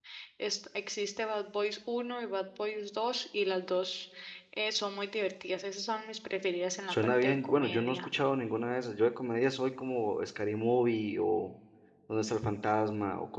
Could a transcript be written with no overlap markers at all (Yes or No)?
No